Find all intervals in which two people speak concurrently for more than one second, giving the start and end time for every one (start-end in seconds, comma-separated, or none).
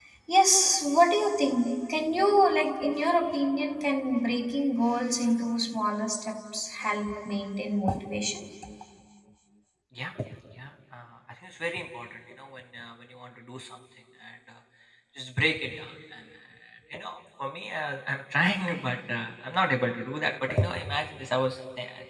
none